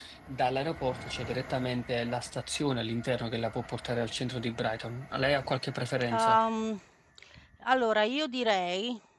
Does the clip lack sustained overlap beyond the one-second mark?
Yes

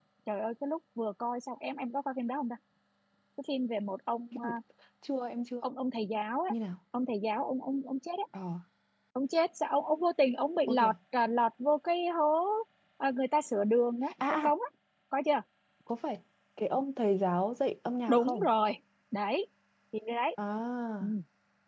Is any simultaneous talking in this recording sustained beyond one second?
No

